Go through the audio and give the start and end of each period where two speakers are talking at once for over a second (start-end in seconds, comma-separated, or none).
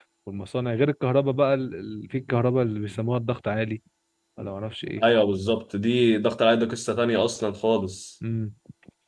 none